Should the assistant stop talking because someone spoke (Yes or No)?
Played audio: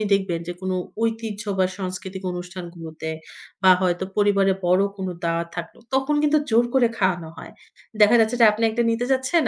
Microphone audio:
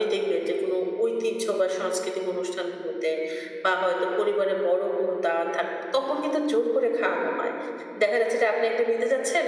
No